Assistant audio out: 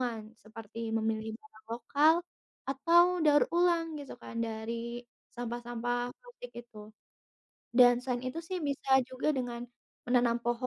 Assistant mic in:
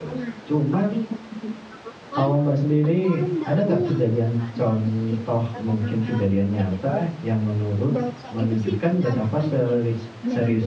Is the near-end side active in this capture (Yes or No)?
Yes